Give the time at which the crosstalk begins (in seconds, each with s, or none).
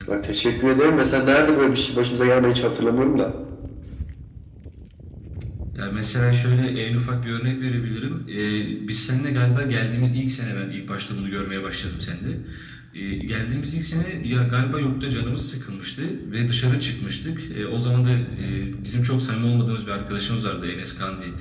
none